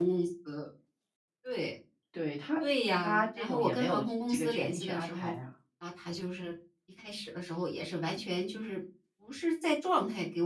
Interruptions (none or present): present